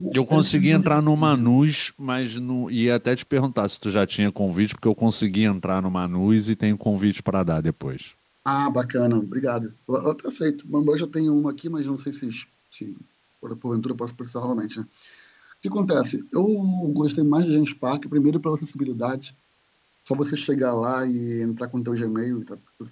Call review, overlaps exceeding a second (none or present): present